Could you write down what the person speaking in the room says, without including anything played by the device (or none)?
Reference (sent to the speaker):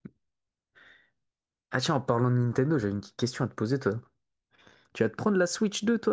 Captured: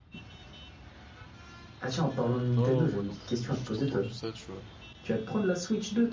Non, moi non plus, mais juste entendu ça, tu vois.